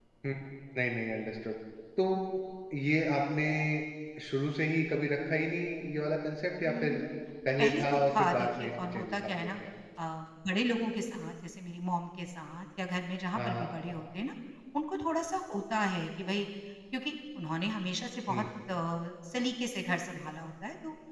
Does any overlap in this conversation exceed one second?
Yes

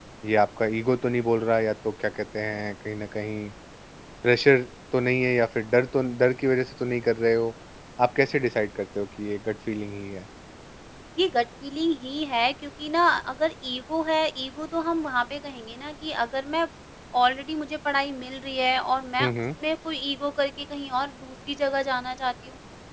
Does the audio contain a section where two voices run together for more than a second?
No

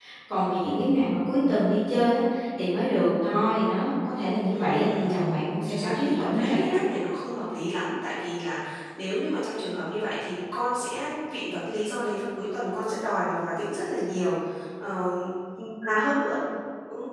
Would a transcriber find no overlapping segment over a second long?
No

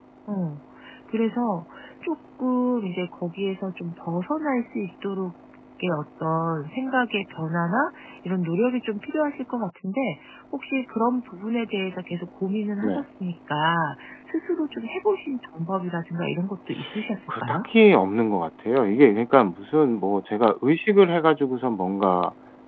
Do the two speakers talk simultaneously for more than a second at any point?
No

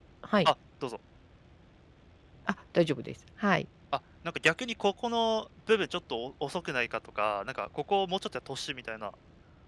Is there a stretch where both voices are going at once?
No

